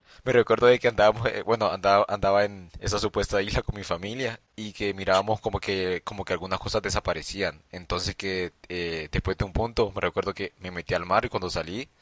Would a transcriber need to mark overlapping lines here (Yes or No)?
No